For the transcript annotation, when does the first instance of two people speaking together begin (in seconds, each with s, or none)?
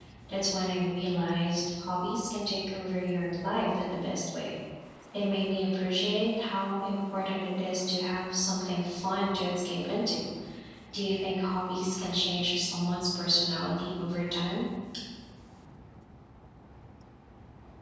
none